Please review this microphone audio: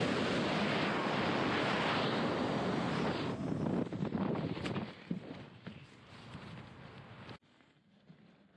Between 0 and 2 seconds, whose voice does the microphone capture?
neither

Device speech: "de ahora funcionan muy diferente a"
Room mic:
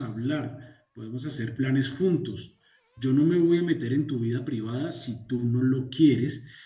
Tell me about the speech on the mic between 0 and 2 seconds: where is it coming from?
user only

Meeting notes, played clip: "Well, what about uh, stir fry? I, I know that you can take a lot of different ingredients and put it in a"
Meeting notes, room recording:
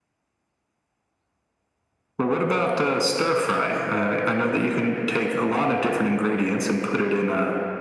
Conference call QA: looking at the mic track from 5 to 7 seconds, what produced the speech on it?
echo only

